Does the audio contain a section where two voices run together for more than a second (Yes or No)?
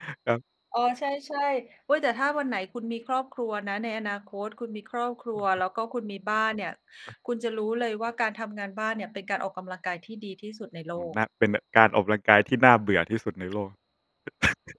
No